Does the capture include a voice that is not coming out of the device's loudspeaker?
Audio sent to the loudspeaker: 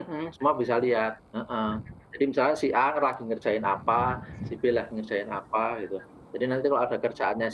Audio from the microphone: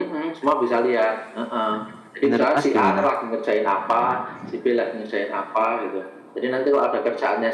Yes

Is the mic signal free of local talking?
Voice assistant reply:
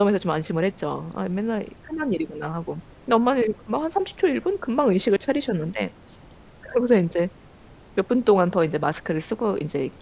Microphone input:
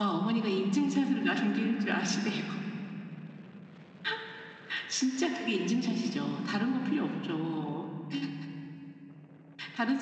No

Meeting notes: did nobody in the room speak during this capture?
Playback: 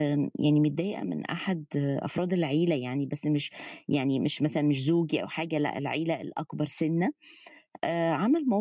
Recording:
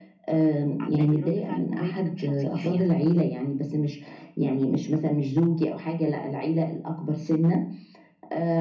No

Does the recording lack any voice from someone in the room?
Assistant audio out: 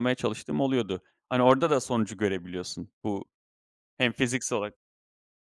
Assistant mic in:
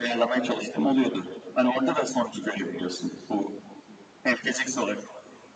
Yes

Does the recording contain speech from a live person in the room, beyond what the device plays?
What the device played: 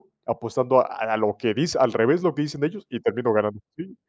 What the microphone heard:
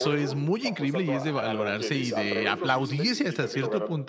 Yes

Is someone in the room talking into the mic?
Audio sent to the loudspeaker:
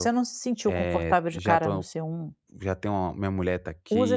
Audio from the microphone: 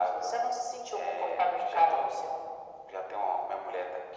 No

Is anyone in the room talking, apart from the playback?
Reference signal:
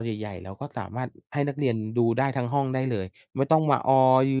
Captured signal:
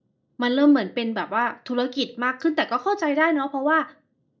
Yes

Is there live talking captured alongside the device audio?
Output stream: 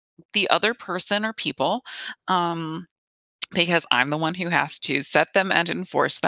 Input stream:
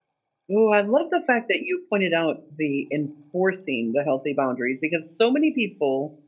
Yes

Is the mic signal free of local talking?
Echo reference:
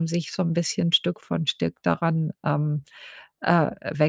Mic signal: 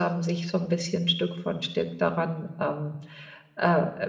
Yes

